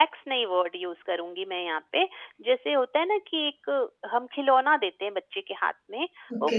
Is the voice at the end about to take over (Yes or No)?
No